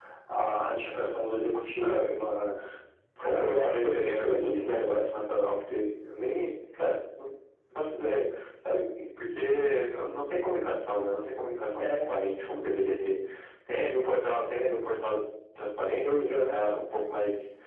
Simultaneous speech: Yes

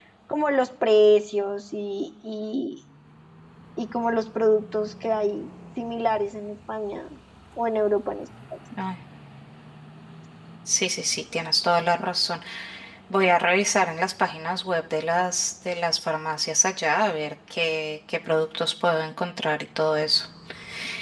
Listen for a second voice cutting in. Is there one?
No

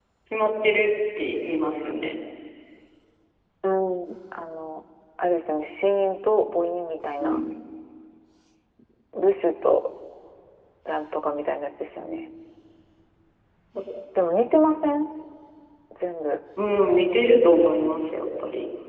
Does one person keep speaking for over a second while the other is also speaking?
No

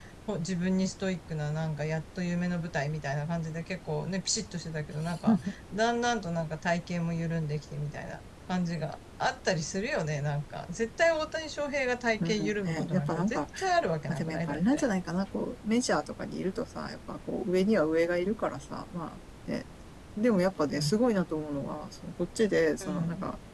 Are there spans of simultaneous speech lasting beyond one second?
Yes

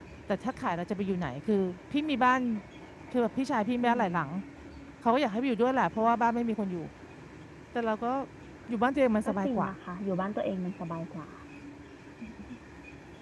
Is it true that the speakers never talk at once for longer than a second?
Yes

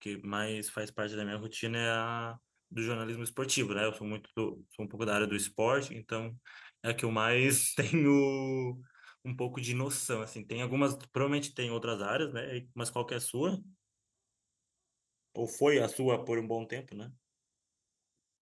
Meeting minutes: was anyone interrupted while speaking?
No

